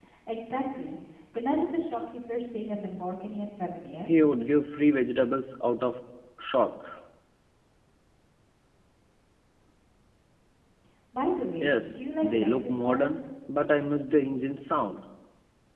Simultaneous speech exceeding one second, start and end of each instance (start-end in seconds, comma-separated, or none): 11.6-13.2